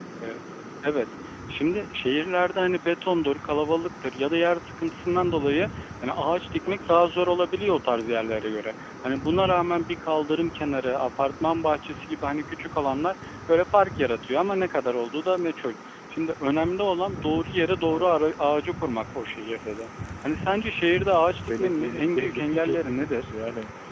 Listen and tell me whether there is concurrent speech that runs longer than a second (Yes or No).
Yes